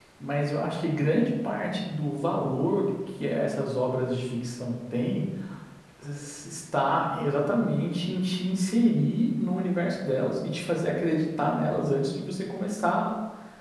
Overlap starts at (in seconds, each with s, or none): none